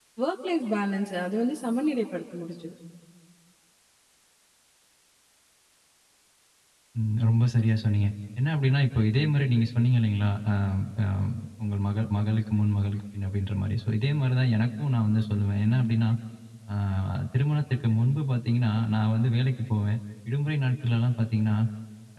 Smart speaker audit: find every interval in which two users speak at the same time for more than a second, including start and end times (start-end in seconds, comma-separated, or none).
none